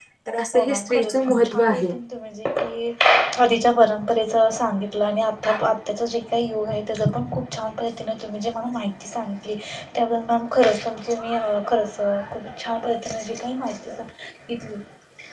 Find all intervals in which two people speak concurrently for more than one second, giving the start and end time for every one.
0.5-1.9

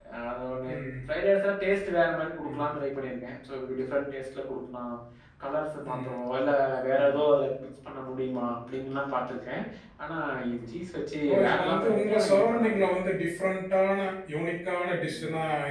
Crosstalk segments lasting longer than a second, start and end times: 11.3-12.9

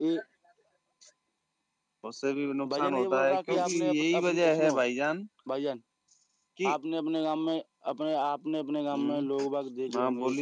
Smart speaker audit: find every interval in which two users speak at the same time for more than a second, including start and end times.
2.7-4.8

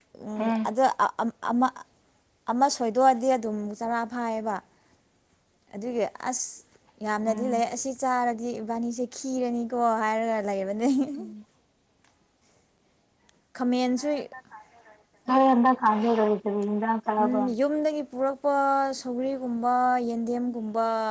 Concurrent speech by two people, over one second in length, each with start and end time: none

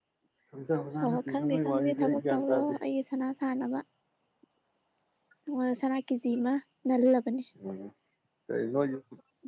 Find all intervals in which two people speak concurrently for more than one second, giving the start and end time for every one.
1.0-2.8

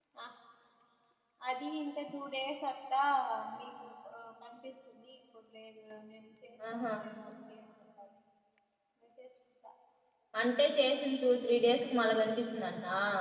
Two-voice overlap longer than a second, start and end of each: none

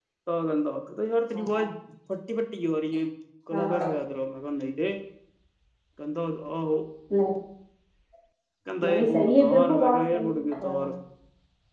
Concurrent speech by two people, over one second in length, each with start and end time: 8.8-10.9

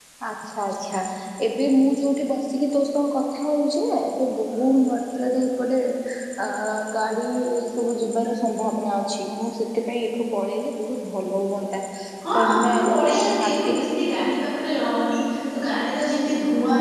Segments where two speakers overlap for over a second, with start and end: 12.3-13.7

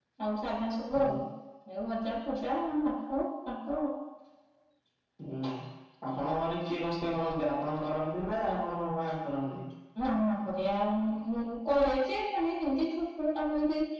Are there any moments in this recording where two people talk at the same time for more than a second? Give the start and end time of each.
none

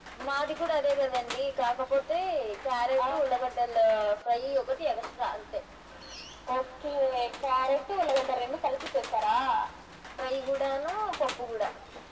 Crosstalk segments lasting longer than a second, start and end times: none

